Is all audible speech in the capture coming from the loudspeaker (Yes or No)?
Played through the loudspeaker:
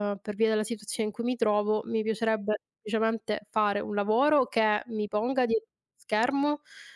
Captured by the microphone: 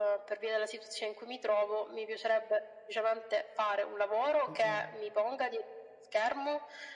No